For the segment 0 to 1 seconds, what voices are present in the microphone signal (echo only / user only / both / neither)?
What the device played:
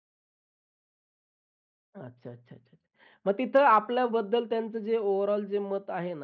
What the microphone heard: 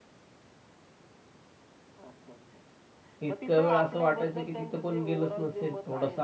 neither